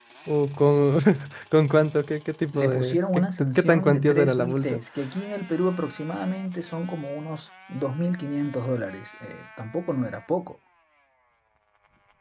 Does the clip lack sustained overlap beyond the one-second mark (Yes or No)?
No